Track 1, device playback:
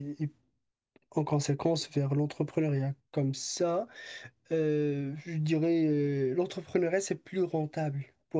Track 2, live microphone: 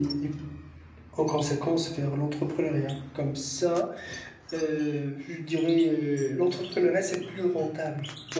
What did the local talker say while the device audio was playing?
none

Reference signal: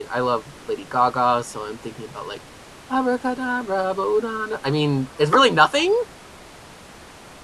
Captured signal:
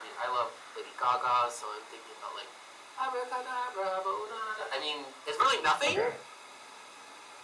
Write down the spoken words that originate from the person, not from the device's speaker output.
okay.

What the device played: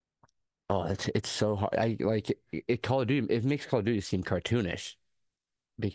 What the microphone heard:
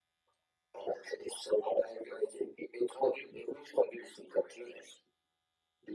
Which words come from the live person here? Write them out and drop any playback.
none

